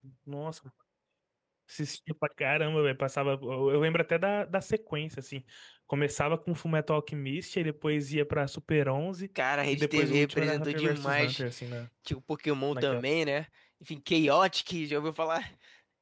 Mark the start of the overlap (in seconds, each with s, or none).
9.7 s